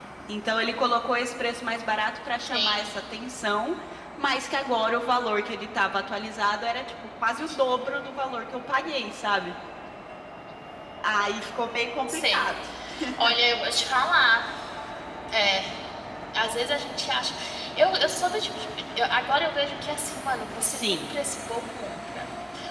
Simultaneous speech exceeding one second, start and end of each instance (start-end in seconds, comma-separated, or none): none